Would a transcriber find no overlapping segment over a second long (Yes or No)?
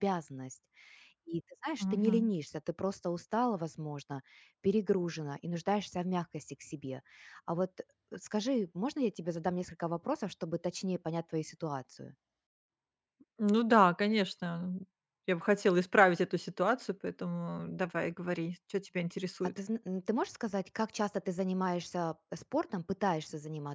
Yes